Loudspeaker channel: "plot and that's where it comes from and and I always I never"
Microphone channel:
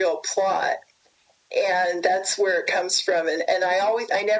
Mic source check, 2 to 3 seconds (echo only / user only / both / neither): echo only